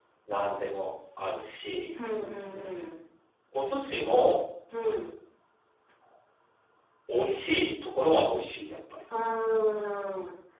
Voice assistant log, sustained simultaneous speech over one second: none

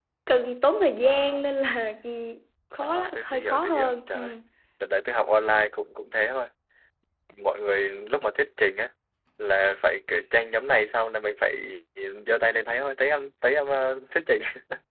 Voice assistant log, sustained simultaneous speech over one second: present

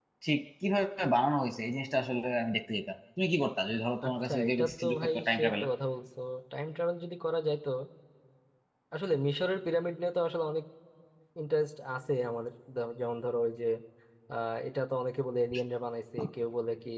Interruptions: present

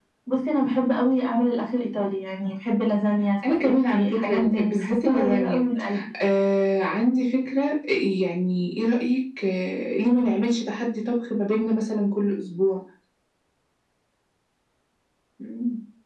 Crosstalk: present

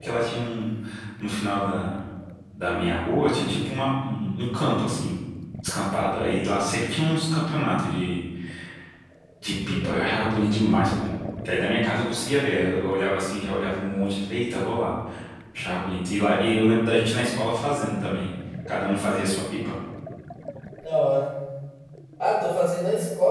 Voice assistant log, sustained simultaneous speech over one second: none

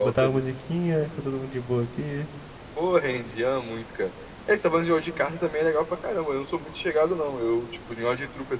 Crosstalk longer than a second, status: none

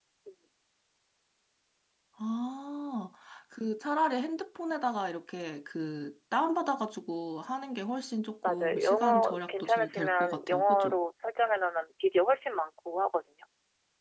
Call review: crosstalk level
present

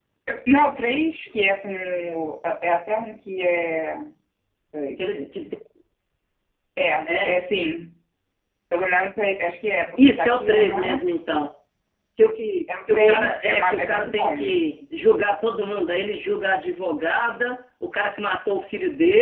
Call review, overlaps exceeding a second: present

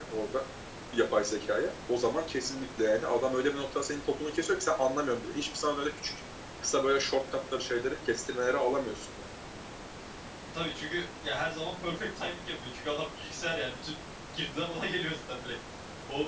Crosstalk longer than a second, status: none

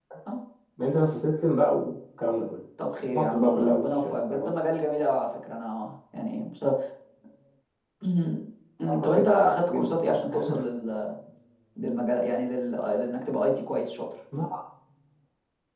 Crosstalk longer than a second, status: present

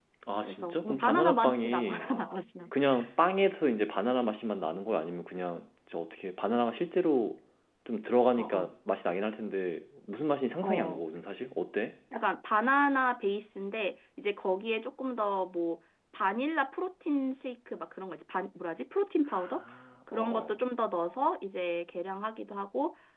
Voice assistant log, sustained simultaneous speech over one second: present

